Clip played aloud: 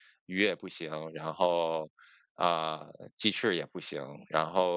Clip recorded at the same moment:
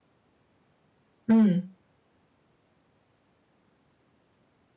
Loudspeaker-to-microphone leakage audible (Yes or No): No